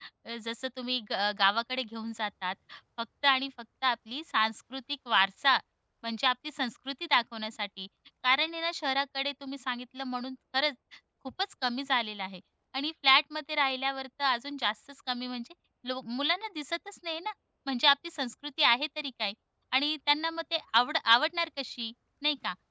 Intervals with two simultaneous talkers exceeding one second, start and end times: none

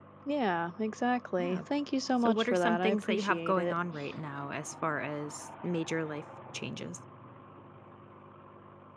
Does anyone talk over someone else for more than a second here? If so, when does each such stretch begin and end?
2.2-3.7

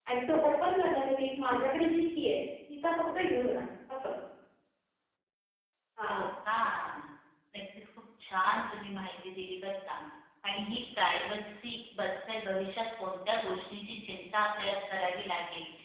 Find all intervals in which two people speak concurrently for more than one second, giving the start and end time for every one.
none

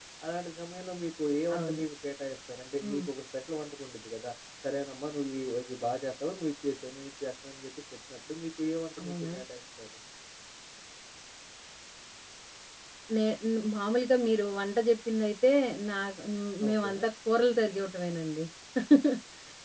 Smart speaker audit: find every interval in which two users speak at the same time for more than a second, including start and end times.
none

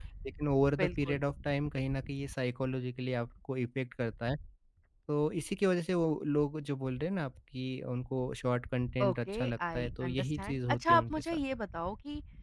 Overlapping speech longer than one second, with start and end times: 9.0-11.4

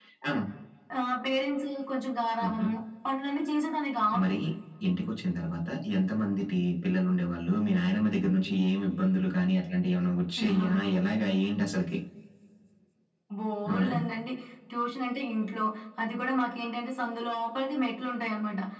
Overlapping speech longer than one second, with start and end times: none

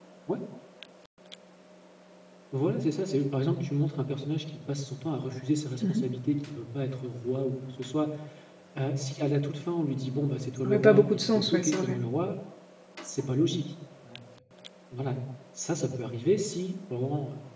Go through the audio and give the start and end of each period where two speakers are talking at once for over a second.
10.6-12.0

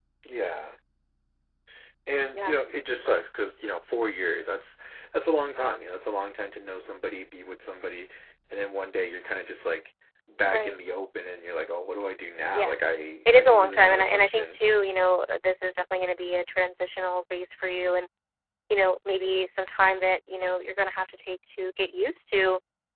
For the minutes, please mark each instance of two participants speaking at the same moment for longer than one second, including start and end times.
13.3-14.6

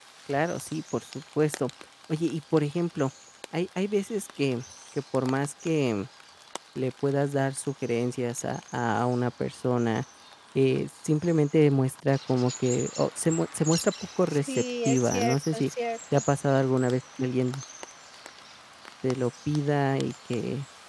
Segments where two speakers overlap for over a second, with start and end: 14.3-15.7

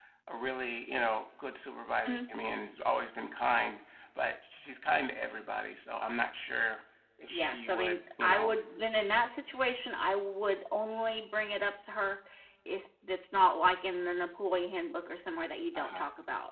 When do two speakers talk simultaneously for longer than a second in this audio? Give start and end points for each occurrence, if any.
7.3-8.6

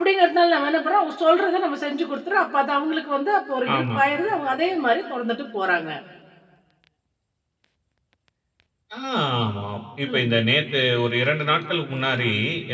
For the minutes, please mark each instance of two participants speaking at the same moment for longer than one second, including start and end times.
none

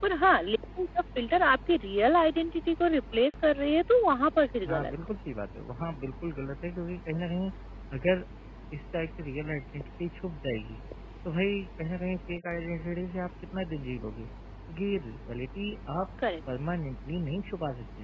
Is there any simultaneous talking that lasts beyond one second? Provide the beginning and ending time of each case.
none

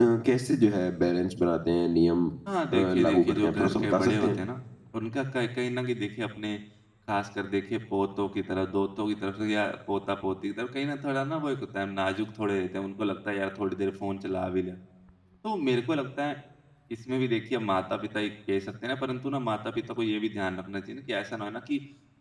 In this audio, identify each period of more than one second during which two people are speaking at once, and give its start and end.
2.7-4.4

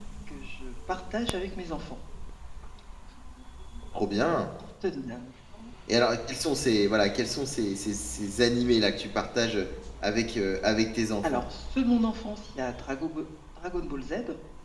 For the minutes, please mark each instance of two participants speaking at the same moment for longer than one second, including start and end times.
none

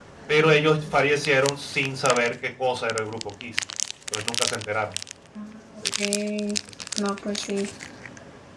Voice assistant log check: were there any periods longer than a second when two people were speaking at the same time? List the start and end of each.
none

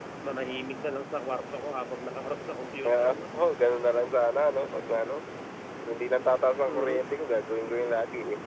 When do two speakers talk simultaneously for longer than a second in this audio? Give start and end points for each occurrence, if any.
none

